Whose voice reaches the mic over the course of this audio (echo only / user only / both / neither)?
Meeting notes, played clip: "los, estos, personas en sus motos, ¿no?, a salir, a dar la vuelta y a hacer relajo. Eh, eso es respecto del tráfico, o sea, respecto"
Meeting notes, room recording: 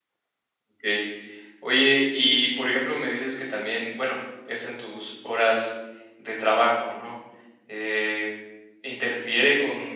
user only